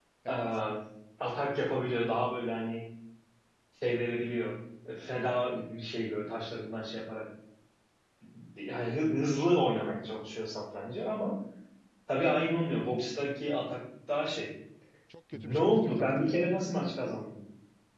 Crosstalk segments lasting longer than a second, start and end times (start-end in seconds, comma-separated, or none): 15.3-16.6